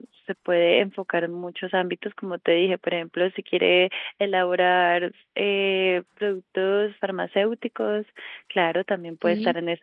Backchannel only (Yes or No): Yes